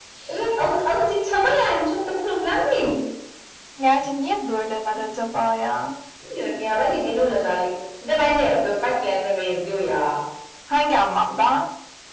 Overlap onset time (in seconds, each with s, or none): none